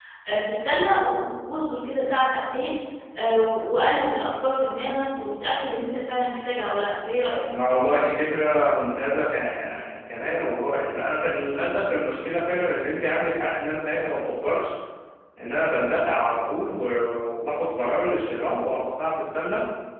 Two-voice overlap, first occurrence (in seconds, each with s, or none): none